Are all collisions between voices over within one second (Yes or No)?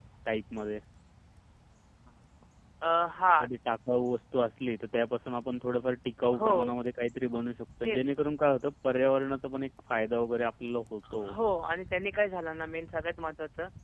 Yes